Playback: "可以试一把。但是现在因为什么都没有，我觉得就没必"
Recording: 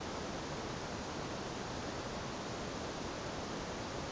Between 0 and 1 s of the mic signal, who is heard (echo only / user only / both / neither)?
neither